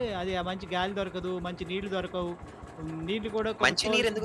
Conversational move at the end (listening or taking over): taking over